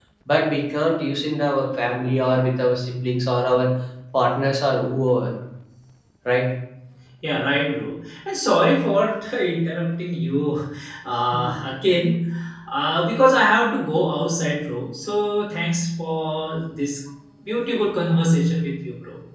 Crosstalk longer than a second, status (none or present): none